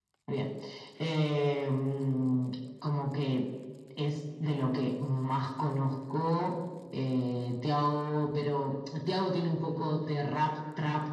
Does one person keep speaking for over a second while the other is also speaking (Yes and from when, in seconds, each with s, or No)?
No